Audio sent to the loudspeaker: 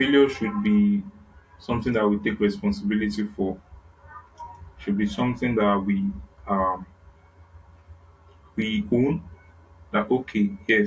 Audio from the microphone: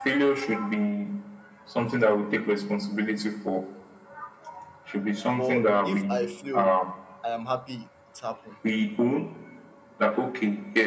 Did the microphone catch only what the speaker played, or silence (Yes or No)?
No